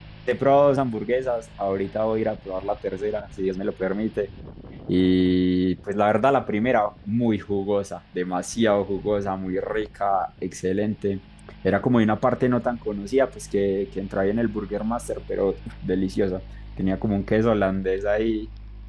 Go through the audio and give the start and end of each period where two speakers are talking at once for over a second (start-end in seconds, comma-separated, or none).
none